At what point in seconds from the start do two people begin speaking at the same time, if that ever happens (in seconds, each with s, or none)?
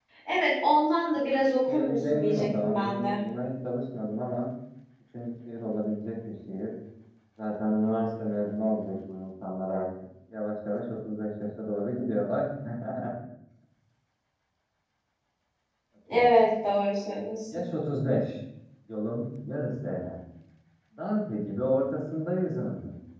1.7 s